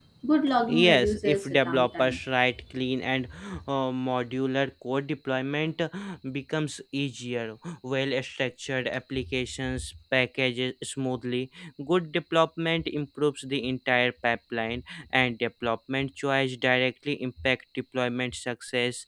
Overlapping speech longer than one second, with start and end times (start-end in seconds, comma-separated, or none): 0.7-2.2